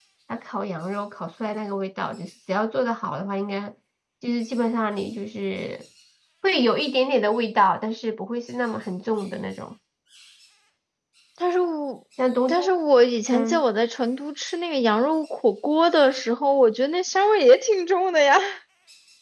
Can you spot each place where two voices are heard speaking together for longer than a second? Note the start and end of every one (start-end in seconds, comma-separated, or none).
none